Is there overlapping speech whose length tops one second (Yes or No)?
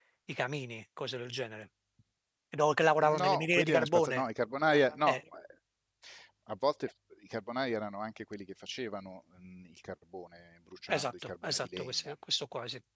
Yes